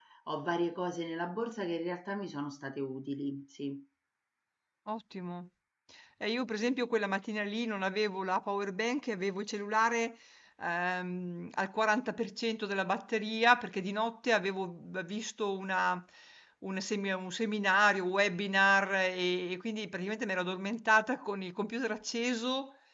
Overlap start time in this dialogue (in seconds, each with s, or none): none